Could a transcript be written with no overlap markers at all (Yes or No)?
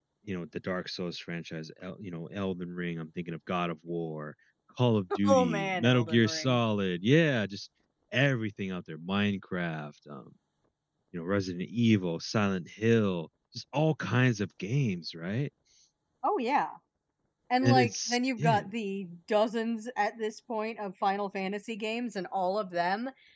No